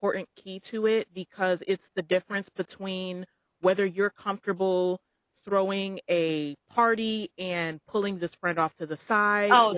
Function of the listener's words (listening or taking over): taking over